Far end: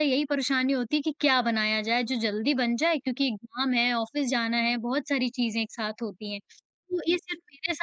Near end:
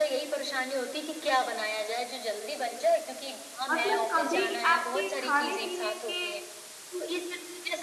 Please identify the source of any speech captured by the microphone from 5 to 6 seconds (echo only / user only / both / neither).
both